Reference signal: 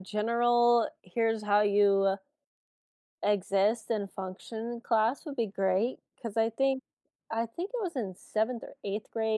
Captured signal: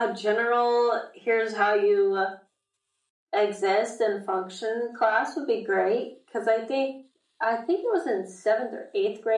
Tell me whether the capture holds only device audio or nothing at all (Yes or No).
Yes